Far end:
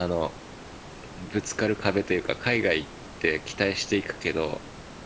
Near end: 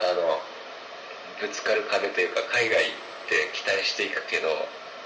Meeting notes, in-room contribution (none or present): none